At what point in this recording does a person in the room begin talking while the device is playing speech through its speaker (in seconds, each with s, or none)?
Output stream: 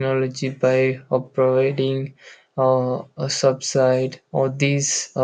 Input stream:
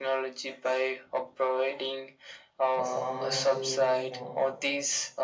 2.8 s